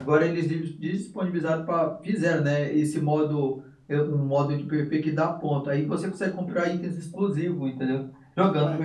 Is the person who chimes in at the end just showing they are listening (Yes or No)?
No